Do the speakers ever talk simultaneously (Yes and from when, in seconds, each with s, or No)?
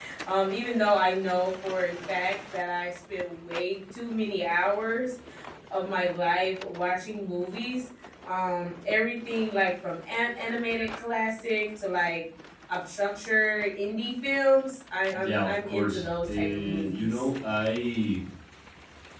Yes, from 15.1 s